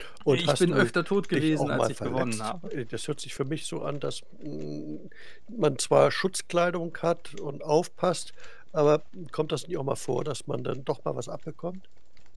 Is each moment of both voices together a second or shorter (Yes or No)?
No